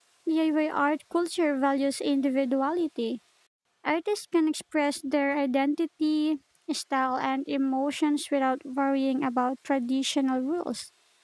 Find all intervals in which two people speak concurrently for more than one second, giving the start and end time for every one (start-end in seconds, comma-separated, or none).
none